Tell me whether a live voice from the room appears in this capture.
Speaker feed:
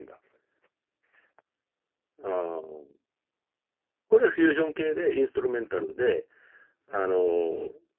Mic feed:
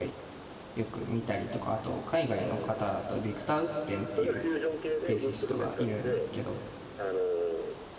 Yes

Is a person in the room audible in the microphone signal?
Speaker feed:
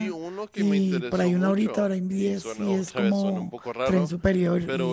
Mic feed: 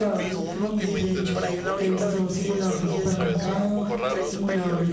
Yes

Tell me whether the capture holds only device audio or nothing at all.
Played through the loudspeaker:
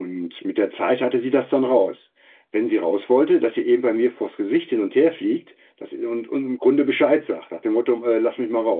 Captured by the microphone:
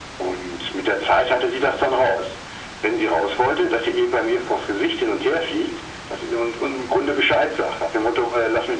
Yes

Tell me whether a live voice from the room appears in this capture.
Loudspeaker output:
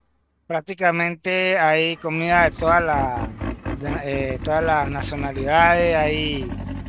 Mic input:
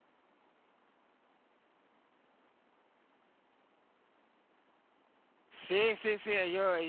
Yes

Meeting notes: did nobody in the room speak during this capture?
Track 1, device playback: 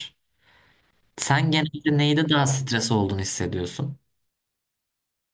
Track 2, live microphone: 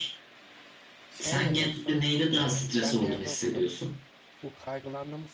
No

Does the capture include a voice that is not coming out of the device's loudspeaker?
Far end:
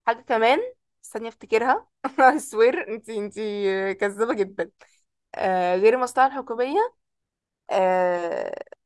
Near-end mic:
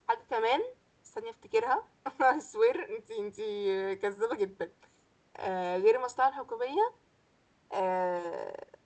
No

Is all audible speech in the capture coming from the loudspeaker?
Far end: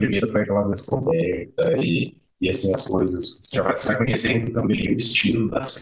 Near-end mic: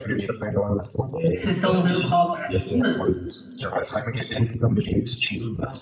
No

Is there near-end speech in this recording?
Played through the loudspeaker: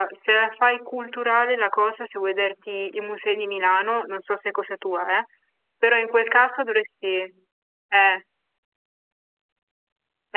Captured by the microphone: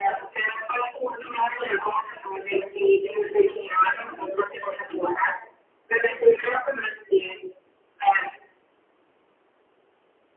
No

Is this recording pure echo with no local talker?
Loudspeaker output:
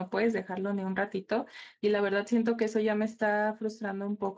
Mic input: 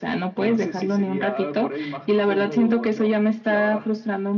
No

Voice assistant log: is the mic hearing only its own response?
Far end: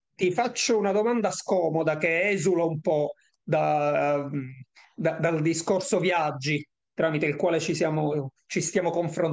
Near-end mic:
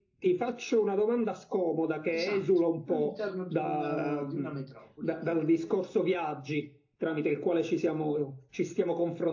No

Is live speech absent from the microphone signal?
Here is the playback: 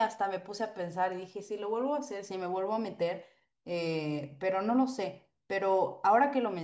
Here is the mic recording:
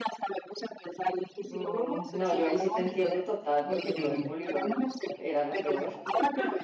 No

